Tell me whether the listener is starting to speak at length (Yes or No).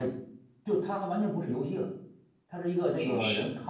No